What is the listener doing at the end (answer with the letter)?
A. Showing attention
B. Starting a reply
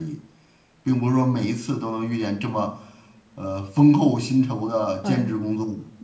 B